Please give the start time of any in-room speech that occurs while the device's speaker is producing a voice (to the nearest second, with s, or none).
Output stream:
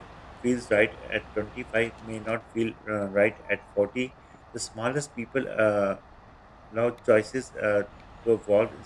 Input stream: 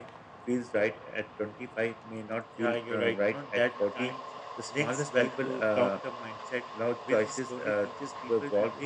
2 s